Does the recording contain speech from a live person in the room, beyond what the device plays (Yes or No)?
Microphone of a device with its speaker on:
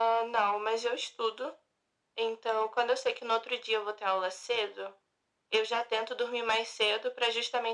No